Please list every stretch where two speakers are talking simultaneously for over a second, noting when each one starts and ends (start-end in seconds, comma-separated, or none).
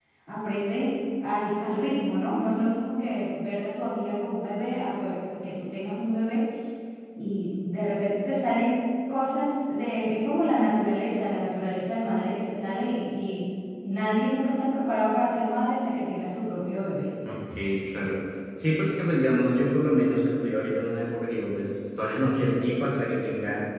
none